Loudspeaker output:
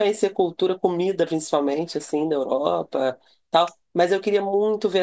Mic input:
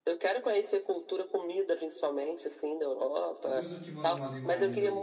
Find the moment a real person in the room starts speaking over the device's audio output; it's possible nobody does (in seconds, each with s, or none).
3.4 s